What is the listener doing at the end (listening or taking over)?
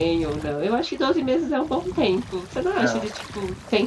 listening